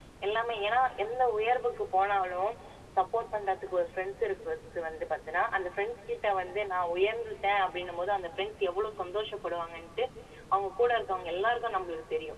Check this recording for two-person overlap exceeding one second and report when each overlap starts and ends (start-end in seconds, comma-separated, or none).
none